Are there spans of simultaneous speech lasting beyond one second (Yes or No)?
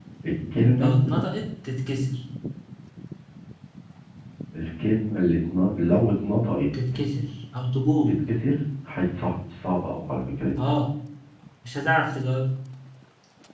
No